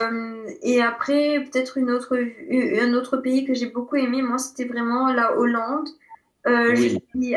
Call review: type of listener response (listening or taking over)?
listening